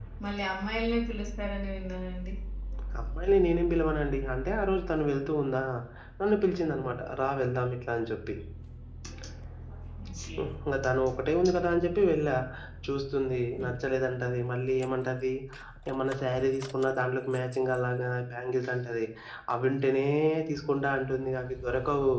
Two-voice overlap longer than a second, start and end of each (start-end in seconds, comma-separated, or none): none